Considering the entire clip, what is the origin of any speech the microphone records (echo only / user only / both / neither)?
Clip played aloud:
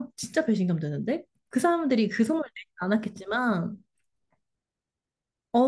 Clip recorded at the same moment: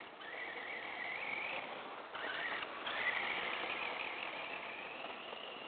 neither